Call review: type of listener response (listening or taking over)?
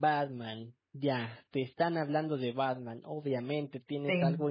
listening